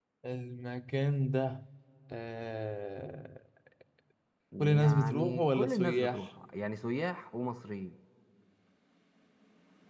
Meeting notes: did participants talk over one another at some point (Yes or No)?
Yes